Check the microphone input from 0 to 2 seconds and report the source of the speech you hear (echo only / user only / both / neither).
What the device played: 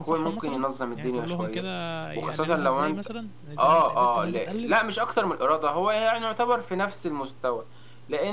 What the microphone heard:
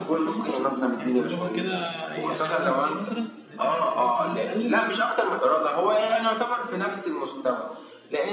echo only